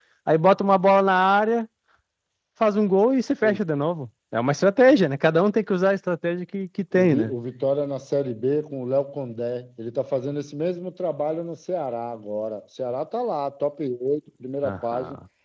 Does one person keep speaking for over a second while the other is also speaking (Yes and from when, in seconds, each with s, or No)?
No